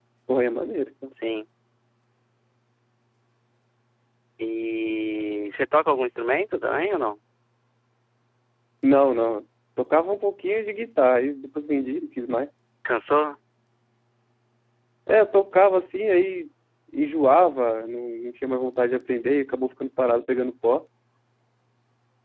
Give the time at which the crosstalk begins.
none

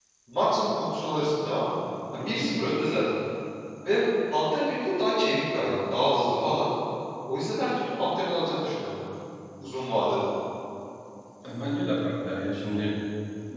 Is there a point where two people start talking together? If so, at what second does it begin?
none

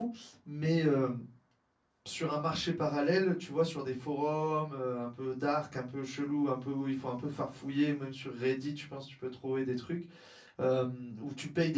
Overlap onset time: none

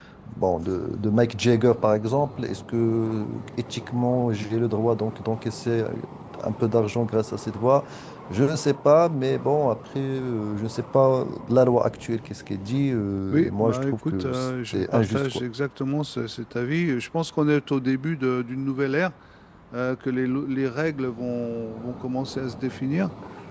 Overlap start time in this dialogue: 13.3 s

